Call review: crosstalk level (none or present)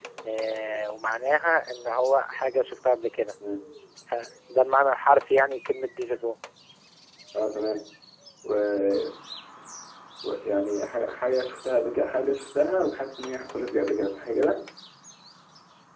none